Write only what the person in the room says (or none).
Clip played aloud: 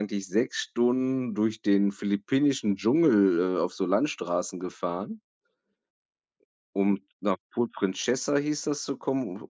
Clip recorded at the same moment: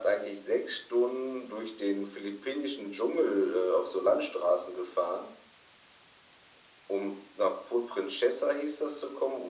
none